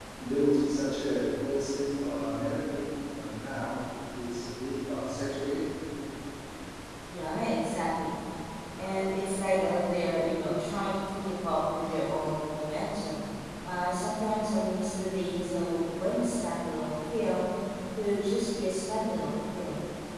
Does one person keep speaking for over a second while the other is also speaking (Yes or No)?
No